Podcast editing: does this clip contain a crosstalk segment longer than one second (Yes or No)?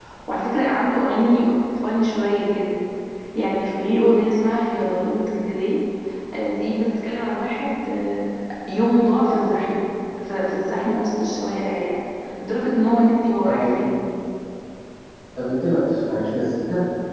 No